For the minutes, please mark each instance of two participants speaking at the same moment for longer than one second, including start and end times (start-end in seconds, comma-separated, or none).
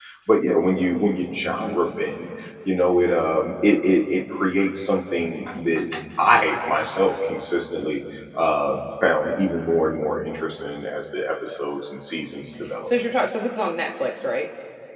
none